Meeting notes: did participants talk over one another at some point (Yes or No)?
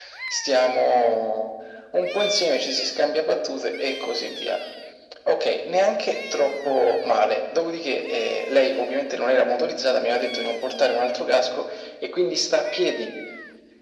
No